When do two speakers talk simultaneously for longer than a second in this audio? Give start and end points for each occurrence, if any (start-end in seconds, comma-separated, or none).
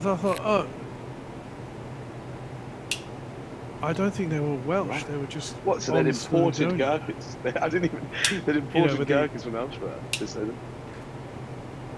5.9-7.1